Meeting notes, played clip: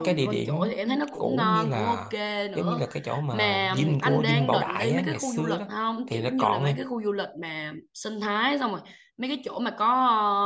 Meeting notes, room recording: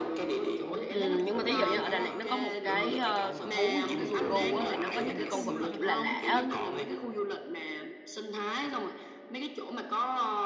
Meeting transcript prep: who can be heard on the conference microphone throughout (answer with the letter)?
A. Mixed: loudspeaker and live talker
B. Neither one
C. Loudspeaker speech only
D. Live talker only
A